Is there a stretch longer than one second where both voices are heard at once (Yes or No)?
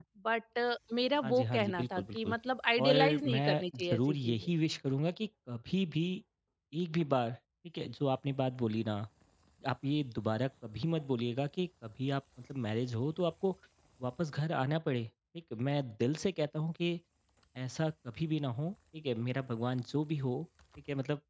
Yes